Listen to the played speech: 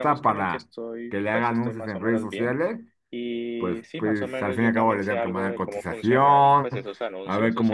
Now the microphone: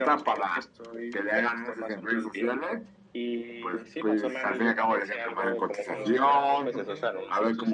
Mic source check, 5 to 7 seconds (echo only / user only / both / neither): both